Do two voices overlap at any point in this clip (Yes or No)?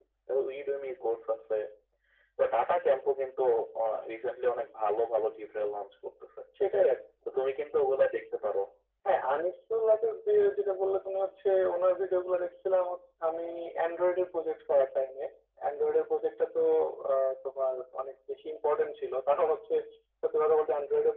No